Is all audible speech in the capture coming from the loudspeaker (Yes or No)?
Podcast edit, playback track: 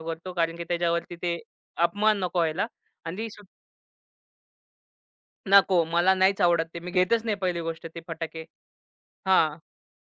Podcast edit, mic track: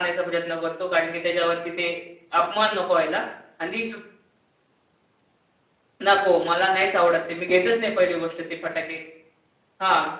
Yes